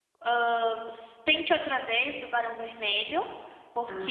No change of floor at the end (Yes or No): Yes